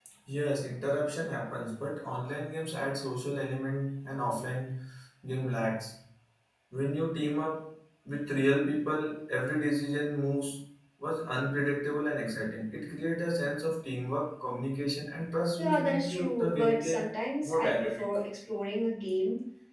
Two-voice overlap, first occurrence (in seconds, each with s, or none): 15.6 s